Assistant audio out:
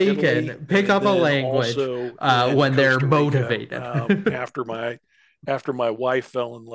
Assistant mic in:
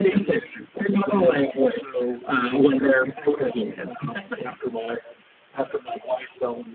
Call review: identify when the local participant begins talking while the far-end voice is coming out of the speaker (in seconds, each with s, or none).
none